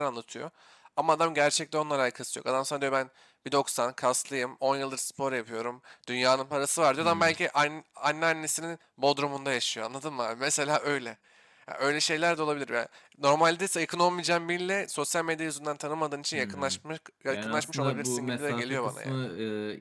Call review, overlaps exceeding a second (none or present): present